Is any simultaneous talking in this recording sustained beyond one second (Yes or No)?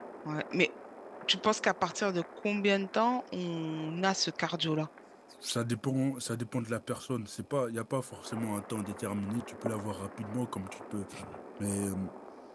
No